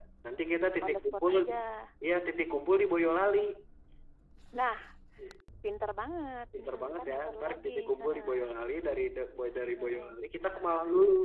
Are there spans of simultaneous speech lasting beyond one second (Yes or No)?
Yes